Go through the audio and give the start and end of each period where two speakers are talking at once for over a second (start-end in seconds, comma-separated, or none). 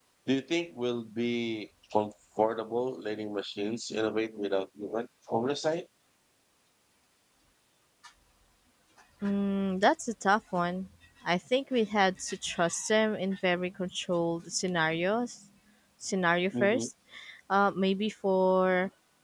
none